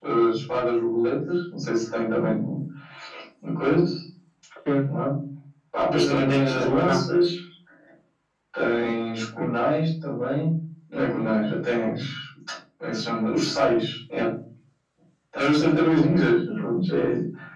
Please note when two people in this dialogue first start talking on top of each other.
5.9 s

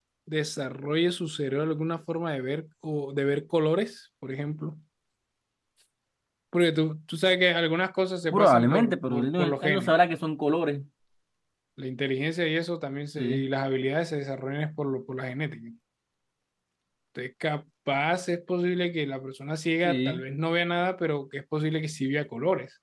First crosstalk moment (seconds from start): 8.3 s

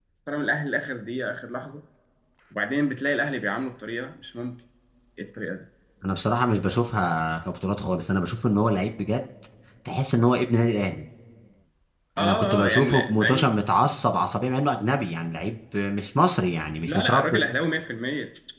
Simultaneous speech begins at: 12.2 s

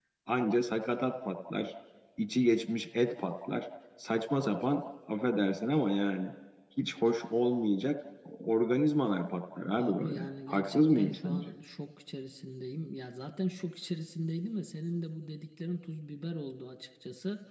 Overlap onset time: 9.8 s

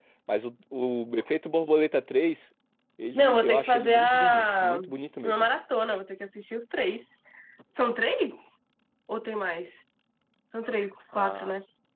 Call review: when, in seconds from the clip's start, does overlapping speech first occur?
3.1 s

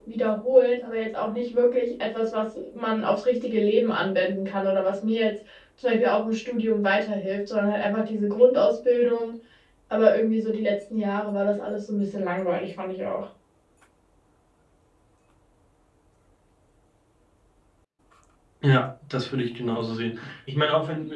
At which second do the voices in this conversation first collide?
none

